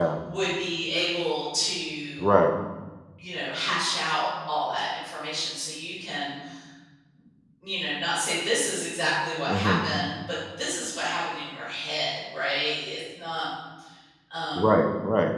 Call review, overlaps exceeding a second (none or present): none